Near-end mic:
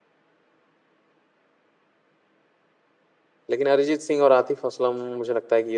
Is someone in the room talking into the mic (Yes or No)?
Yes